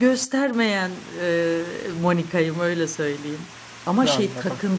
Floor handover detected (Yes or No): No